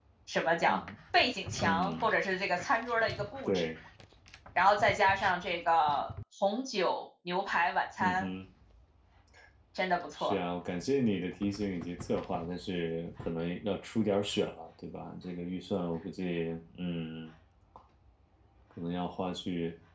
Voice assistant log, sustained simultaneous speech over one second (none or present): none